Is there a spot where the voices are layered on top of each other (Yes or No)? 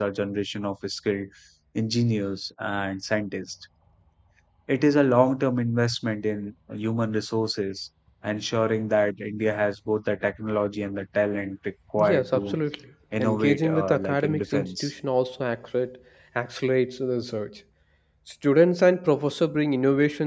Yes